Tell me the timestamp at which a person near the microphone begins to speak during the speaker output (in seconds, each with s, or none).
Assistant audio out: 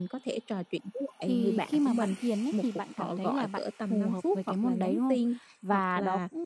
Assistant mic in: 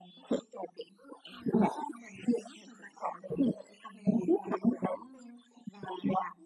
none